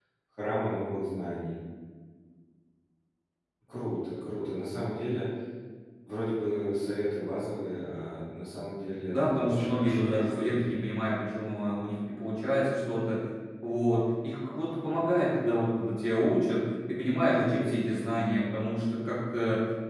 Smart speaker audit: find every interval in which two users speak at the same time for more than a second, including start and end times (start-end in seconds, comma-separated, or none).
9.1-10.7